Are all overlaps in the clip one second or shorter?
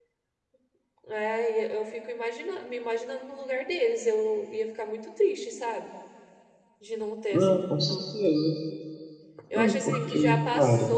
No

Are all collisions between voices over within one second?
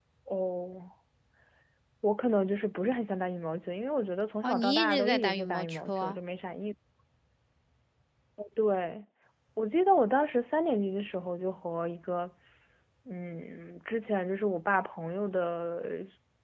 No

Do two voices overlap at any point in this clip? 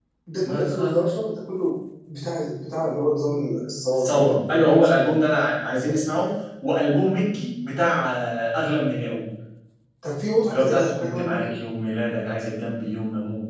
Yes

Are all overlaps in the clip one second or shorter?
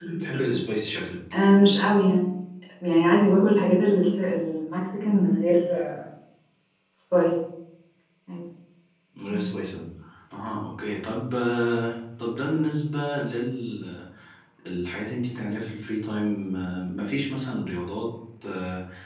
Yes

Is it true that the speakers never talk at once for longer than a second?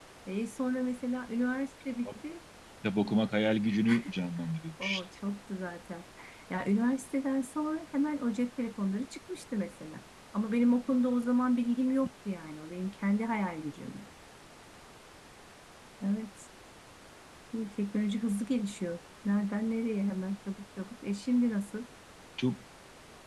Yes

